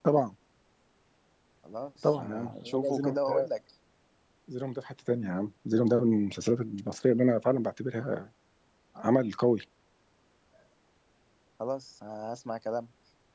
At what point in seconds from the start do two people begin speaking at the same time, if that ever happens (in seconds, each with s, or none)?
2.0 s